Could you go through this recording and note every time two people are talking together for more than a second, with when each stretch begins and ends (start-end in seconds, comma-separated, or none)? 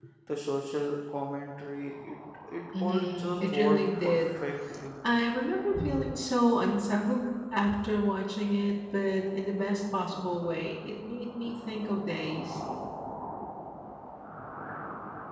2.8-4.2